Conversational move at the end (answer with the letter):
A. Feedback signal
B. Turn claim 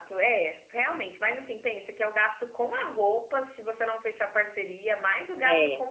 A